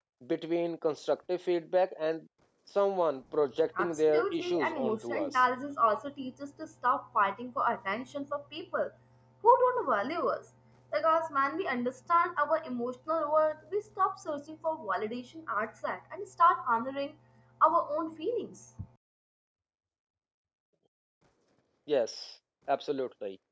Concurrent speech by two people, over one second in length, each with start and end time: 3.8-5.4

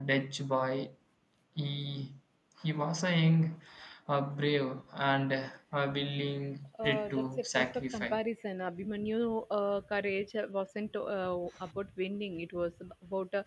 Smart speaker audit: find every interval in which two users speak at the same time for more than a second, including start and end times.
6.8-8.2

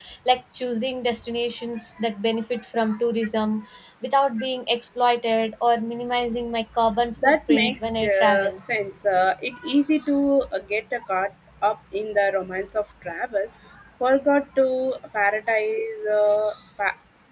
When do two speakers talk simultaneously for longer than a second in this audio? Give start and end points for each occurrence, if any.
7.2-8.6

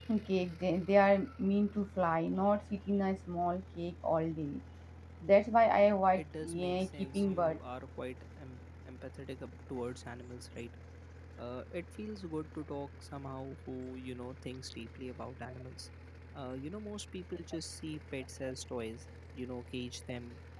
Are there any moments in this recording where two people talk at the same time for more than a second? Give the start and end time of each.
6.2-7.6

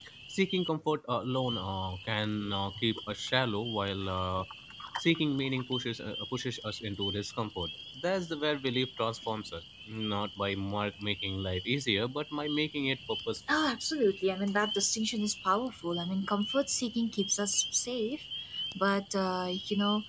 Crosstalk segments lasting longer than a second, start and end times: none

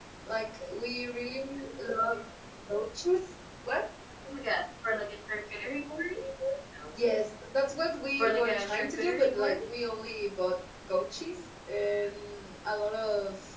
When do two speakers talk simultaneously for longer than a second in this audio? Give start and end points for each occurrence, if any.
8.2-9.6

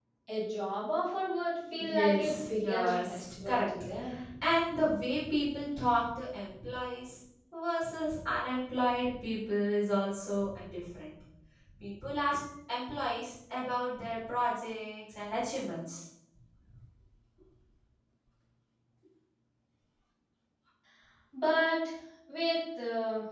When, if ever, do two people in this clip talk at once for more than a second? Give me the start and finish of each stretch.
1.8-3.7

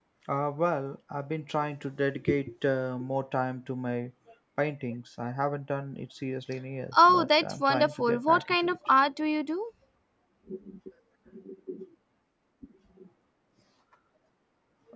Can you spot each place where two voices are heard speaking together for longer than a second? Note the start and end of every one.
7.0-8.8

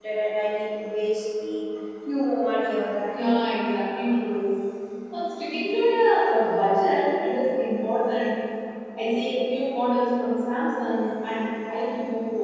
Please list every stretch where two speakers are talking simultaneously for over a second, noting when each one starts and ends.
none

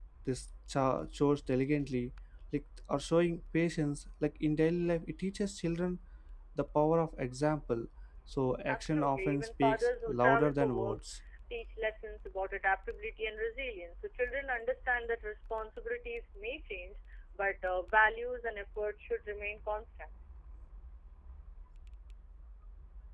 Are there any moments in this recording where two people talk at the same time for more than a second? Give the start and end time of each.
8.7-11.0

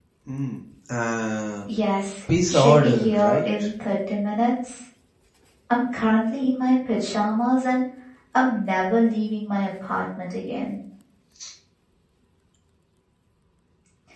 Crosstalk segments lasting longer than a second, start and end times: 2.5-3.7

